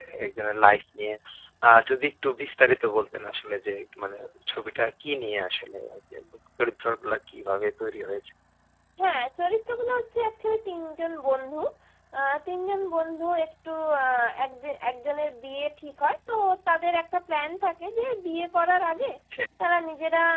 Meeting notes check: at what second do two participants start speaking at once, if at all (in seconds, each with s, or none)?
none